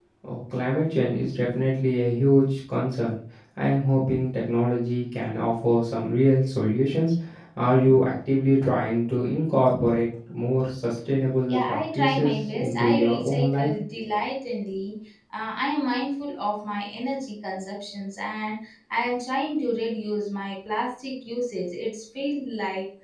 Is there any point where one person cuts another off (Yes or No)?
Yes